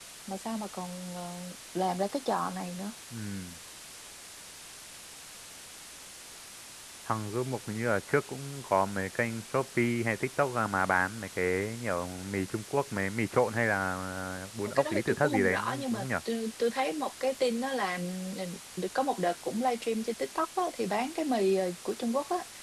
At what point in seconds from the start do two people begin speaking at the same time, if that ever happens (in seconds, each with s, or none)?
14.6 s